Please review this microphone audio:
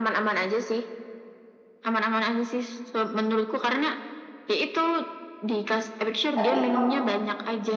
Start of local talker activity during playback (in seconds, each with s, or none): 6.4 s